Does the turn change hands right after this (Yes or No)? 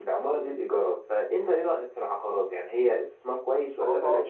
Yes